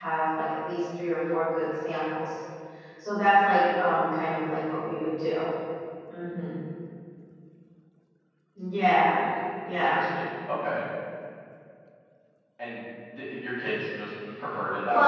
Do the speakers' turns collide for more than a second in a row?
No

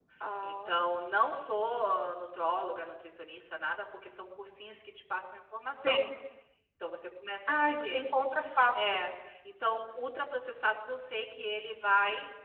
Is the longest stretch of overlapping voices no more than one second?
Yes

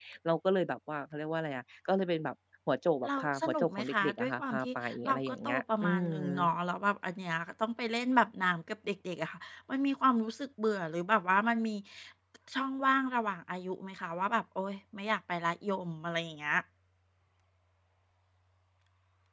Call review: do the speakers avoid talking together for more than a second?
No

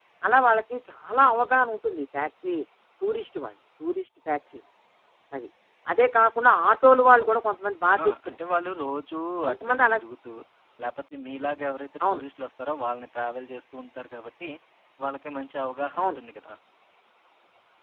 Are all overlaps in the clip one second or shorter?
Yes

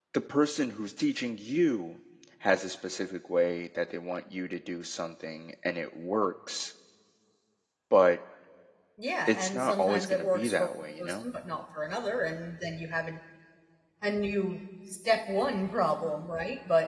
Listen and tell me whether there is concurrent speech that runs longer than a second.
Yes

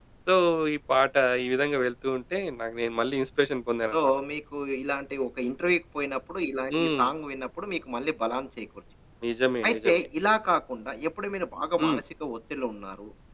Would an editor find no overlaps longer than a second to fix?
Yes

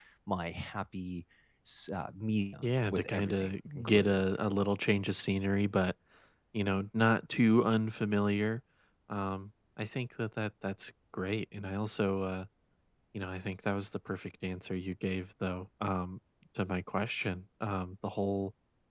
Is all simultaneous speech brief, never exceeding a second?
No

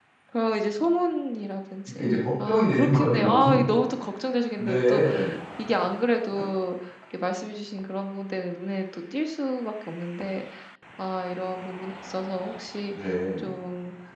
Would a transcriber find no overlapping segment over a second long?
No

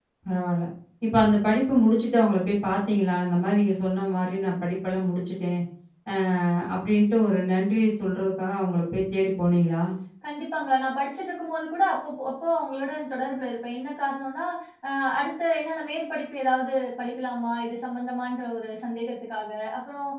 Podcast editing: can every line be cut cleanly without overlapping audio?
Yes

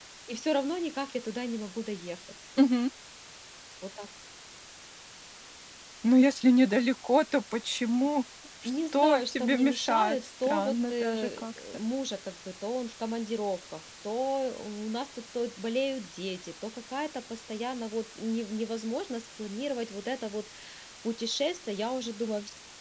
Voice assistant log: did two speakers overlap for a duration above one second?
Yes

